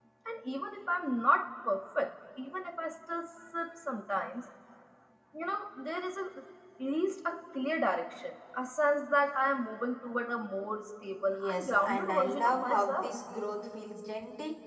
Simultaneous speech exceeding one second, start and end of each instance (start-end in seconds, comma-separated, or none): 11.3-13.1